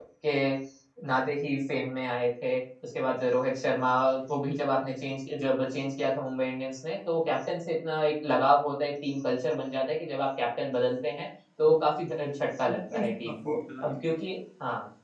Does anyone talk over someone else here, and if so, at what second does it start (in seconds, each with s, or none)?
12.7 s